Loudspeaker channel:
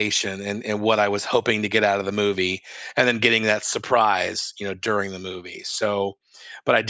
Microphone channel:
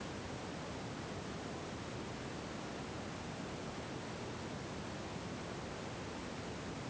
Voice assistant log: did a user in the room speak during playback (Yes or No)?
No